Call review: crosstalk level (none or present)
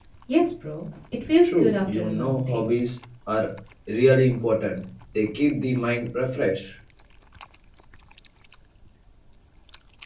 present